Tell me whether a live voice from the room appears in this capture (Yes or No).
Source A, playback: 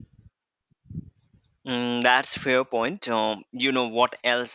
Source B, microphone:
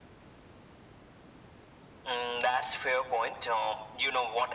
No